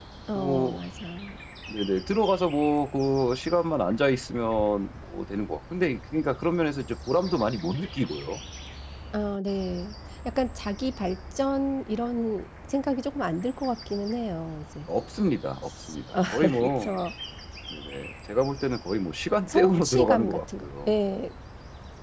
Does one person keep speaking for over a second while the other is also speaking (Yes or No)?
Yes